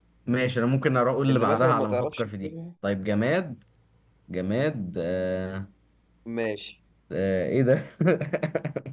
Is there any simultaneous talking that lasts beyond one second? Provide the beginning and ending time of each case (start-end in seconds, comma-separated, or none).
1.3-2.5